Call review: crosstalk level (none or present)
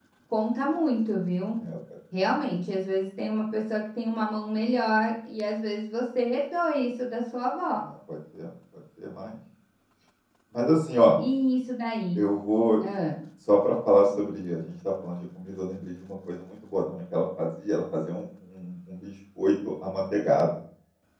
none